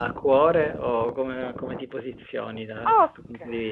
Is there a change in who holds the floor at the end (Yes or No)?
Yes